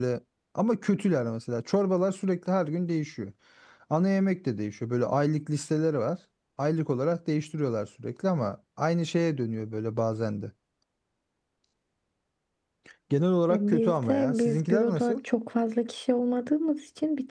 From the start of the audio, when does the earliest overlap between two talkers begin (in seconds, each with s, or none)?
13.5 s